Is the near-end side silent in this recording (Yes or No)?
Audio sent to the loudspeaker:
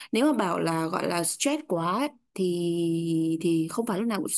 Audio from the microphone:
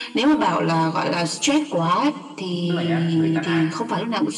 No